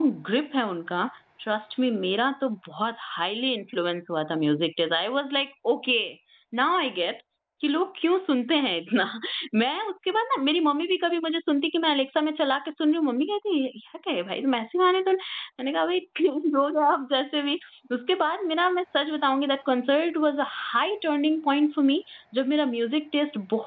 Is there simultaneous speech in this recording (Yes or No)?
No